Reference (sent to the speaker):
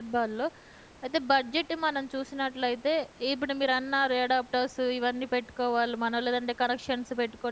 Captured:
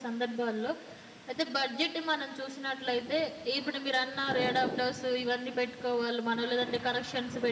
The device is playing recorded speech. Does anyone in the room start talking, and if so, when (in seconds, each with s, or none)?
none